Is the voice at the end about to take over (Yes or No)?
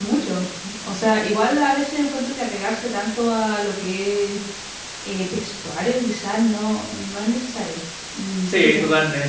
Yes